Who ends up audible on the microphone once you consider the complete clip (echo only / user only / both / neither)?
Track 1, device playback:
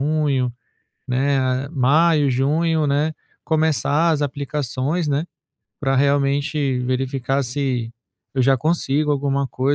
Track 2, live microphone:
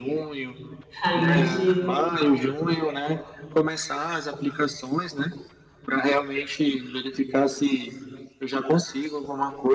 both